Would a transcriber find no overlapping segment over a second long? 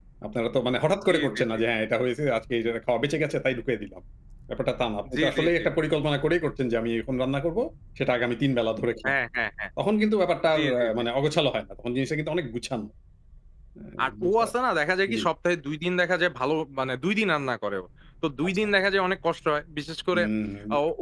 Yes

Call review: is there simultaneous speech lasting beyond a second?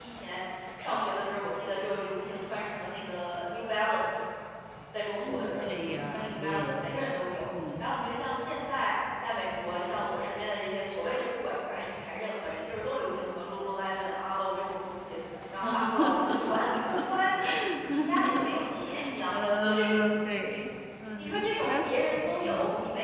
Yes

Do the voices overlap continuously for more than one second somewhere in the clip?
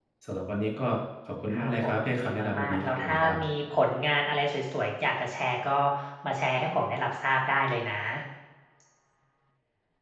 Yes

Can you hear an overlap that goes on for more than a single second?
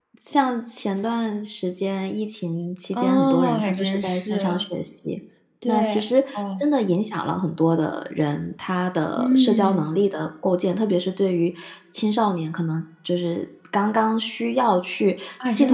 Yes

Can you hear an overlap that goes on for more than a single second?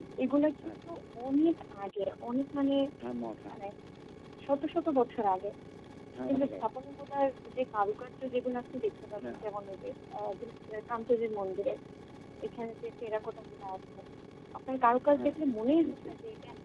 No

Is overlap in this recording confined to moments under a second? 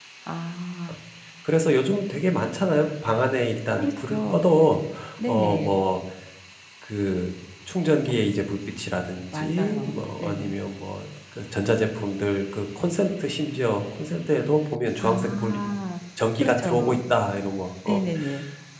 No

